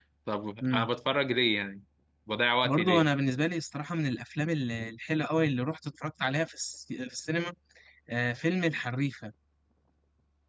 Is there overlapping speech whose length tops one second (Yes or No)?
No